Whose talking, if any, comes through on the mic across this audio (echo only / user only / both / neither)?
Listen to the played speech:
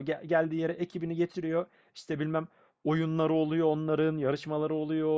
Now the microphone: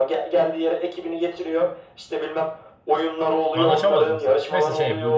both